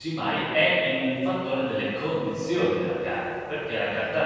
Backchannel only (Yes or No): Yes